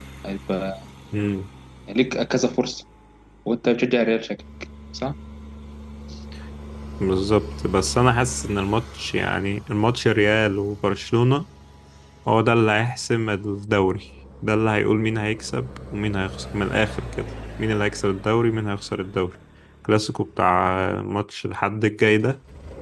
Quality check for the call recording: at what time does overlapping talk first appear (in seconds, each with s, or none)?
none